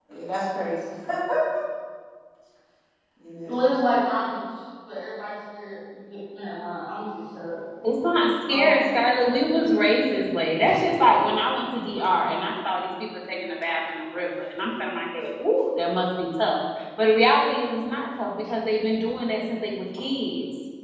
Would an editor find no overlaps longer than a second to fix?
Yes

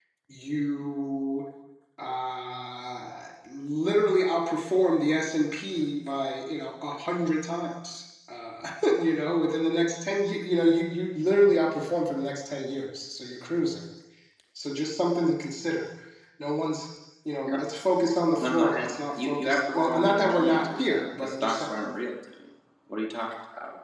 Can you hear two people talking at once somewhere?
Yes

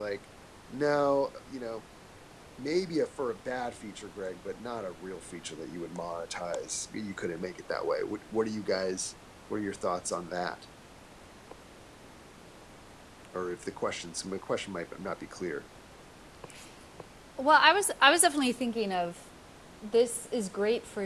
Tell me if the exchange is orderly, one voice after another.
Yes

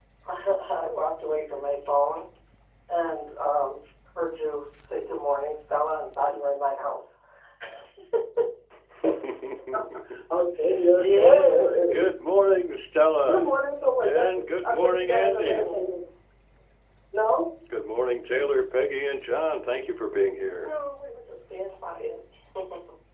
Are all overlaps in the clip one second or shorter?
No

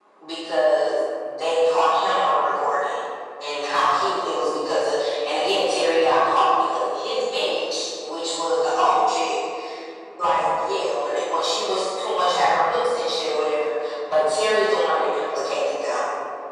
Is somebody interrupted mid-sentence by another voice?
No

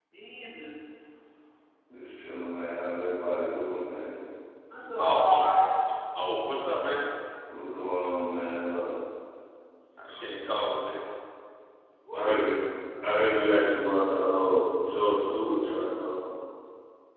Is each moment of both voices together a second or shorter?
Yes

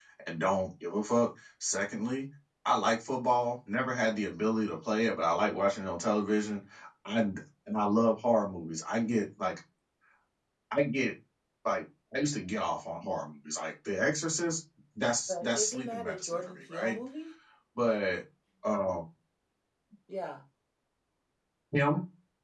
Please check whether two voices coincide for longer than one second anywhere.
Yes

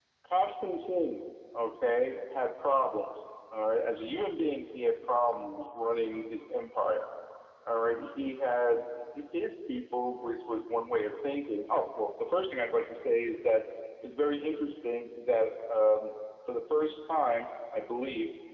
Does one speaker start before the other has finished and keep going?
No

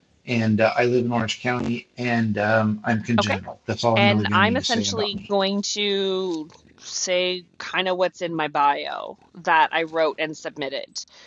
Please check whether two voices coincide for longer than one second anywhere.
Yes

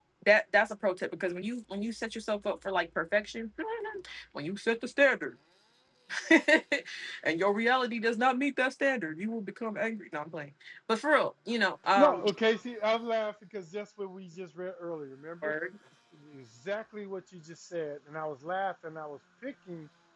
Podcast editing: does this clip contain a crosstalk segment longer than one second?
No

